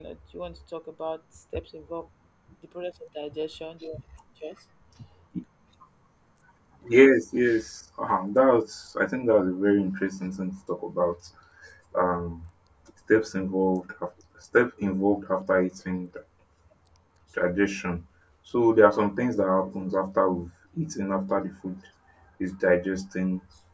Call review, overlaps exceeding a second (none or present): none